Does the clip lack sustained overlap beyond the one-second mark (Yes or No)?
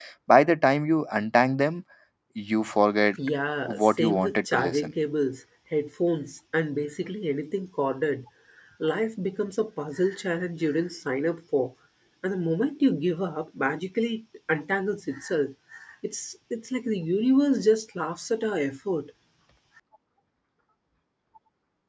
No